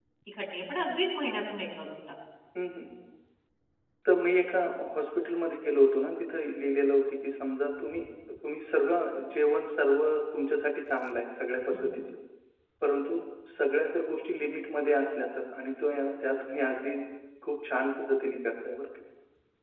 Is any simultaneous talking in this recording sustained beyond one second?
No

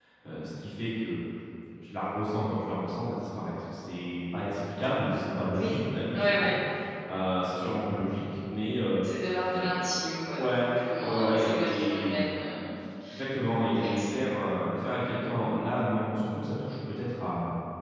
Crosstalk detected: Yes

